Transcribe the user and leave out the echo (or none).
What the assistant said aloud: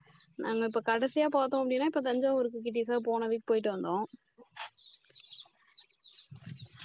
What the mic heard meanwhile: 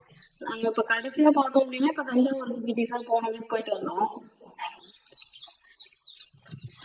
none